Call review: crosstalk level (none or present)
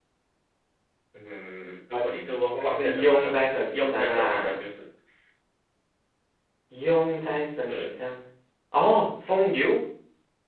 present